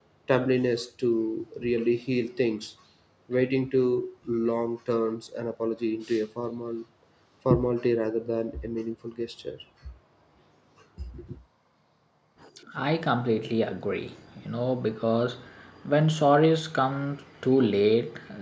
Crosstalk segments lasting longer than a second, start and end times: none

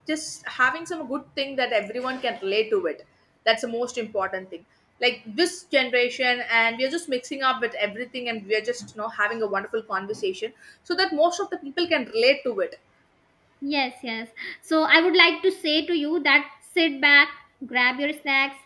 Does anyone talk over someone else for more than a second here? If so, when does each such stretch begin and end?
none

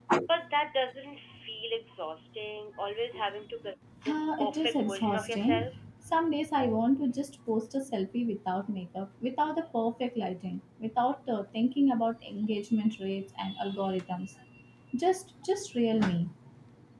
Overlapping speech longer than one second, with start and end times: 4.1-5.7

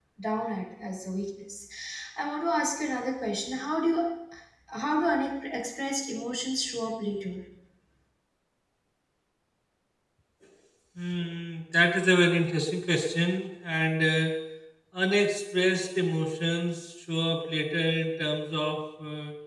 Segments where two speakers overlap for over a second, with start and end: none

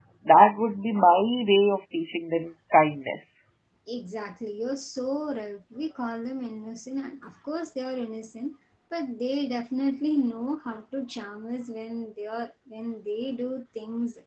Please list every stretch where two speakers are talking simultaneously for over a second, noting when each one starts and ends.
none

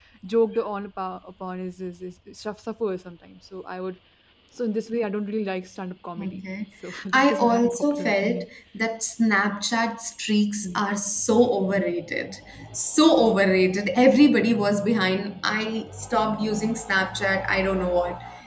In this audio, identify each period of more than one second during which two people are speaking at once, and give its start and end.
7.1-8.5

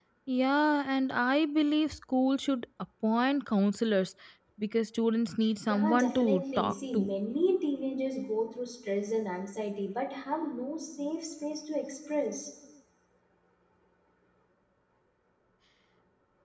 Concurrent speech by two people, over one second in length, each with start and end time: 5.7-7.1

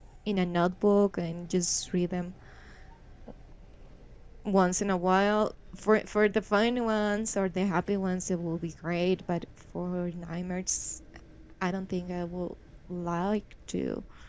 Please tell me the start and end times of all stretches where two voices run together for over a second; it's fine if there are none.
none

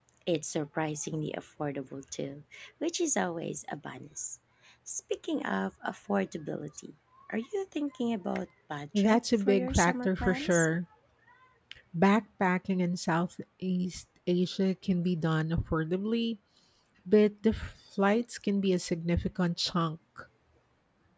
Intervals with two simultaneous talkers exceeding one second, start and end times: 8.9-10.7

